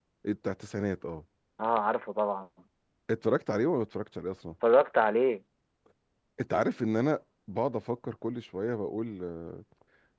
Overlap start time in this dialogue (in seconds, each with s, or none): none